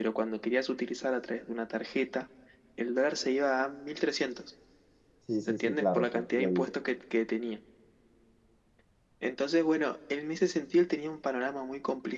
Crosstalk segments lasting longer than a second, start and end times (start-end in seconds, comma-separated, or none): 5.5-6.7